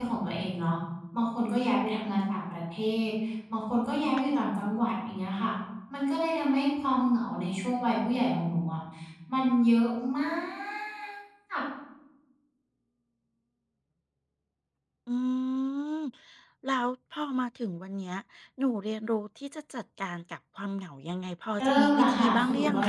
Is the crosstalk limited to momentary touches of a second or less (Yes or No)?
No